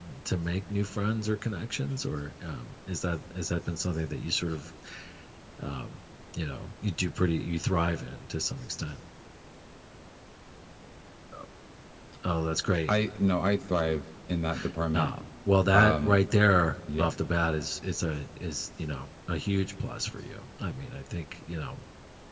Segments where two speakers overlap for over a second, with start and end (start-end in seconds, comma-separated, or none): none